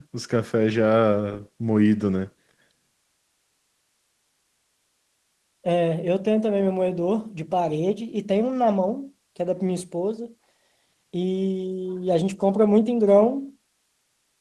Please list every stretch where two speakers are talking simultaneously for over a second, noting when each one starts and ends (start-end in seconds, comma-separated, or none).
none